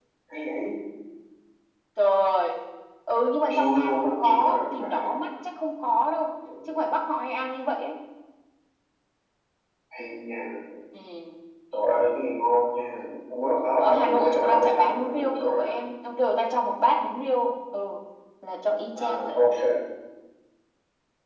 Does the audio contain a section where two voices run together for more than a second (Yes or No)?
Yes